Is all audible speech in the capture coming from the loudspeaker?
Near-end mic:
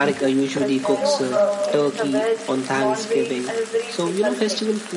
No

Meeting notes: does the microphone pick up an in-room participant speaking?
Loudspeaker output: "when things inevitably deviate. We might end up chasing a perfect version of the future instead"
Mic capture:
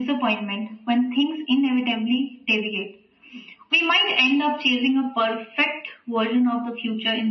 No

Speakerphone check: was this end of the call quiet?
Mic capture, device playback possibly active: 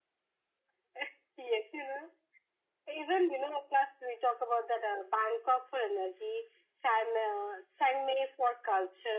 Yes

